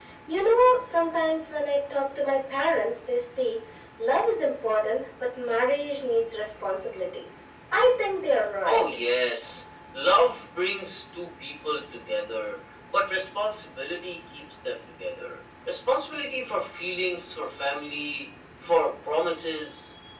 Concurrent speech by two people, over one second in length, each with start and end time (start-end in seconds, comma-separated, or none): none